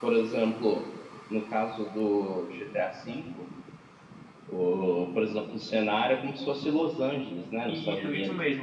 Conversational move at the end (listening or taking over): taking over